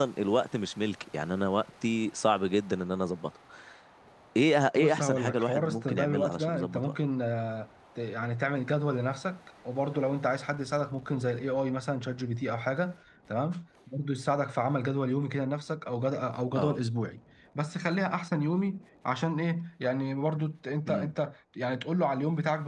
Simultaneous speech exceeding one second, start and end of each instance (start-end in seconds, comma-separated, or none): 4.8-6.8